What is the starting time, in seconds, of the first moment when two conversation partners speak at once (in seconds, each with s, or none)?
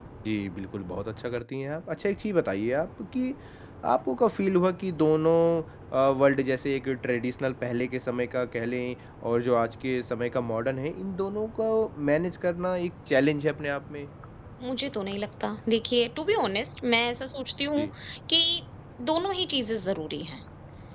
none